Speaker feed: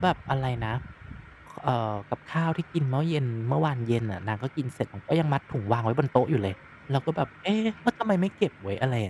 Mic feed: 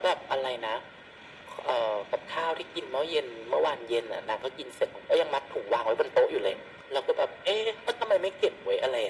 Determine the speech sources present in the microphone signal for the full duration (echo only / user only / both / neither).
echo only